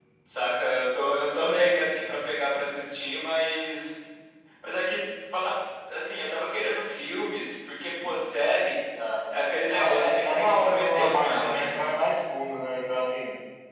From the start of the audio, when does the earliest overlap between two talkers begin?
9.7 s

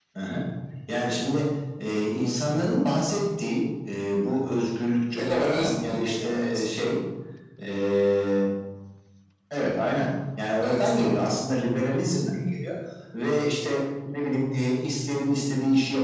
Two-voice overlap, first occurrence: 5.2 s

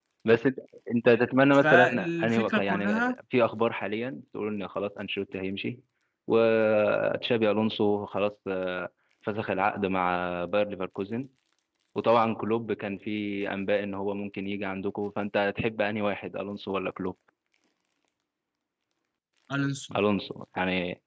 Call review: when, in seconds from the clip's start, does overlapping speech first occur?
1.6 s

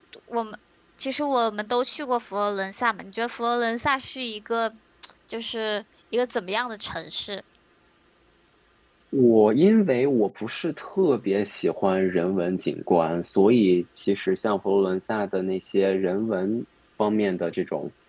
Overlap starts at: none

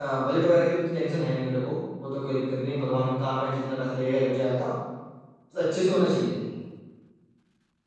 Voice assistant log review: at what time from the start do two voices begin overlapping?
none

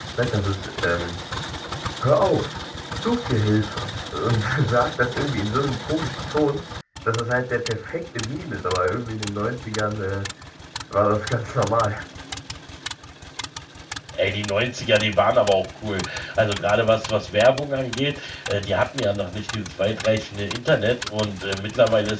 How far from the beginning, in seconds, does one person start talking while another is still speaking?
none

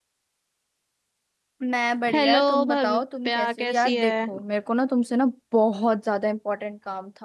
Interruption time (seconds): 2.1 s

